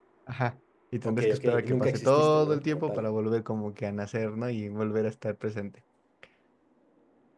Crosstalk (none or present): present